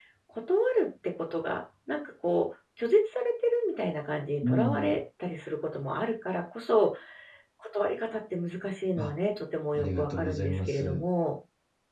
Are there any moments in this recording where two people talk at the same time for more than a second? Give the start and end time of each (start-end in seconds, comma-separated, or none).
9.7-11.0